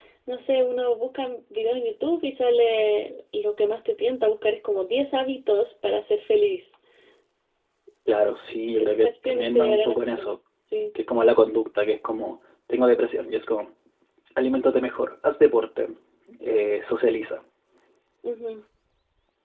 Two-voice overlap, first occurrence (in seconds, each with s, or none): 8.9 s